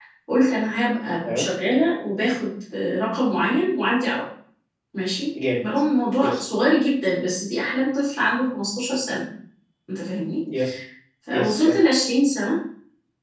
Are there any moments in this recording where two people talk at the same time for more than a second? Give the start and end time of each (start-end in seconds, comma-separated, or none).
none